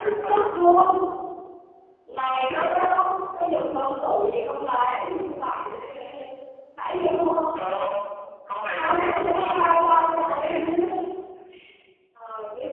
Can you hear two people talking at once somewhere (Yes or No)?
Yes